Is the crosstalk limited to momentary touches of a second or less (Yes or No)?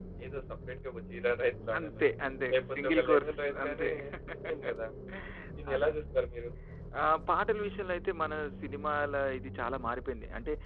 No